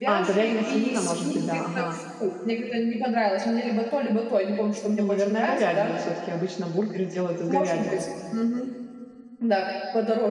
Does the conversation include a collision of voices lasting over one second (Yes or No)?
Yes